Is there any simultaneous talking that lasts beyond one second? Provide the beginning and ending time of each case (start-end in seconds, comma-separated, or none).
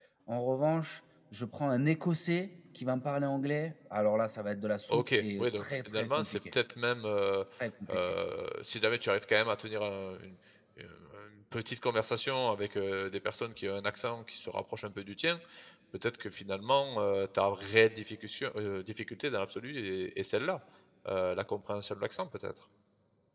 4.9-6.3